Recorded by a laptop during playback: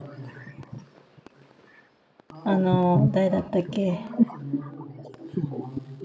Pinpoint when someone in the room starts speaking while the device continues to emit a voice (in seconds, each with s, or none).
2.4 s